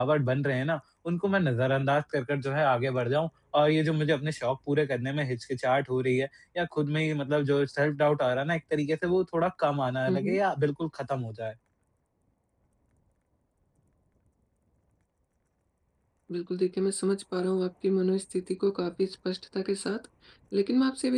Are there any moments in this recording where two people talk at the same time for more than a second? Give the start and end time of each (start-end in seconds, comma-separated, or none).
none